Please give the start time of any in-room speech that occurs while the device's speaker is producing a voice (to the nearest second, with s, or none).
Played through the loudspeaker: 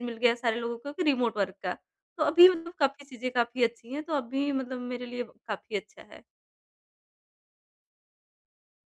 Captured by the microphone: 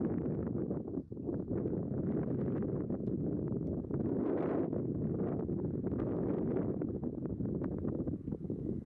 none